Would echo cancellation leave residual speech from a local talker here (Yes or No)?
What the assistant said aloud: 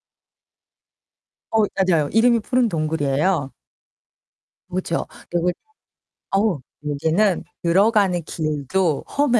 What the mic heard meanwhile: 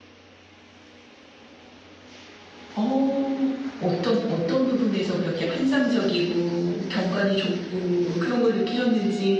Yes